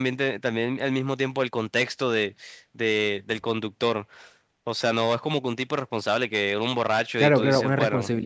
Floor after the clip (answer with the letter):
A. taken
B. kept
A